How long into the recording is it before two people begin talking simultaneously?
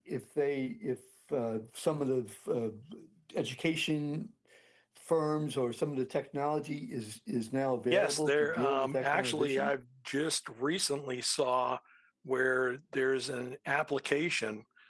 7.9 s

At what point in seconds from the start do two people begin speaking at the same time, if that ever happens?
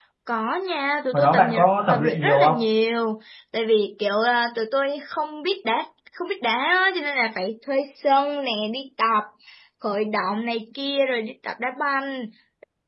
1.1 s

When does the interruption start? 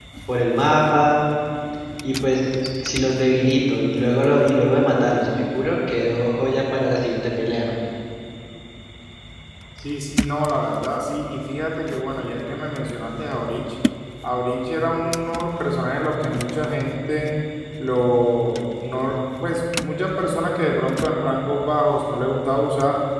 none

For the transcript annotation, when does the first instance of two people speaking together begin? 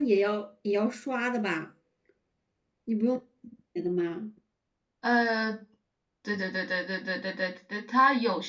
none

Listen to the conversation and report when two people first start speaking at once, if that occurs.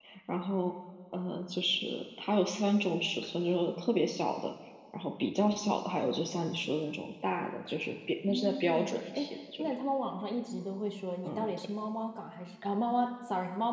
8.3 s

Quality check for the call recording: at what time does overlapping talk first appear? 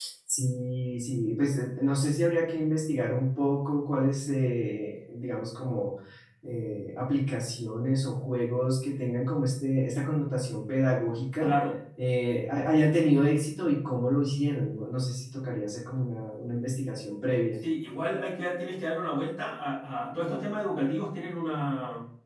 none

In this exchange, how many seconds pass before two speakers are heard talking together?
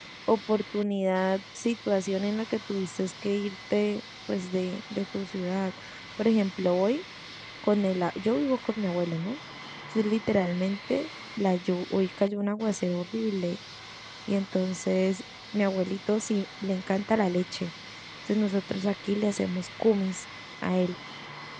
none

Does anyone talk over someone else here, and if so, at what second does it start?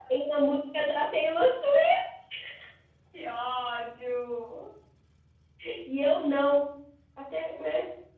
none

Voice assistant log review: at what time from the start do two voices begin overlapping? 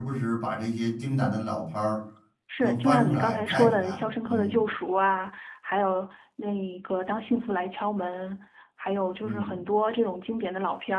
2.6 s

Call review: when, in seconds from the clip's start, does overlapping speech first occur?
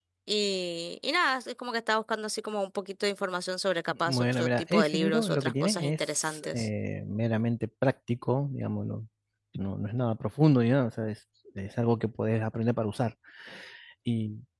3.9 s

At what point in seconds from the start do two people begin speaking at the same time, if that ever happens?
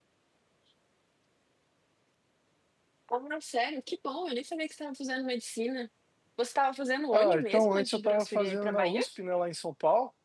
7.1 s

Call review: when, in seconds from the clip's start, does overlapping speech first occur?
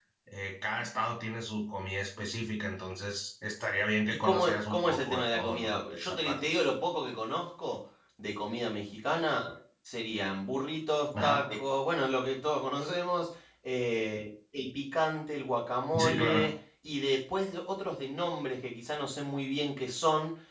4.1 s

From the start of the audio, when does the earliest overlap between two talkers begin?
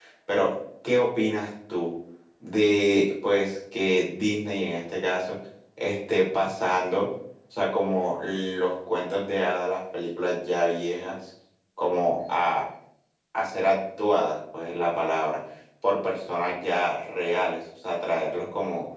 none

